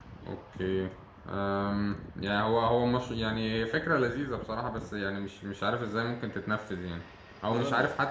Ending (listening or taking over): listening